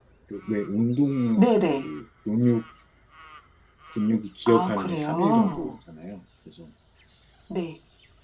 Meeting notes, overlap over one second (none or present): present